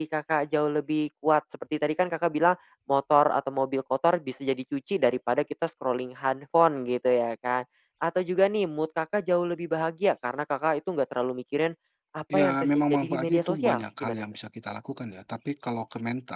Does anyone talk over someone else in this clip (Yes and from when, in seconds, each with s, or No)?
Yes, from 12.3 s